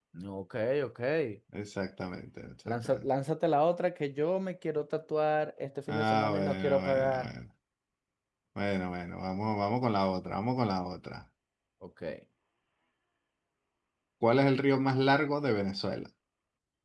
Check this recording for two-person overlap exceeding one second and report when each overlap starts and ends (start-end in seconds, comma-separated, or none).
5.9-7.3